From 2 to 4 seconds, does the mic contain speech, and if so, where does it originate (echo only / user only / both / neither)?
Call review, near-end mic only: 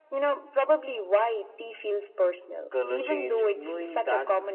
both